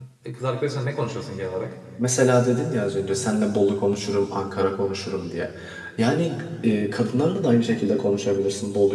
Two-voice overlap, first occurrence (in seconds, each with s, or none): none